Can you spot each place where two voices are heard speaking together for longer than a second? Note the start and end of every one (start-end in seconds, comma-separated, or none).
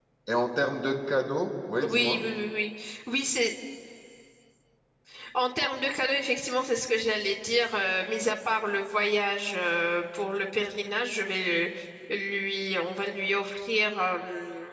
none